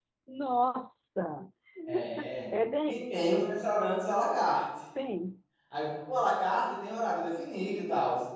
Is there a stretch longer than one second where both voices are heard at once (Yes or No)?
No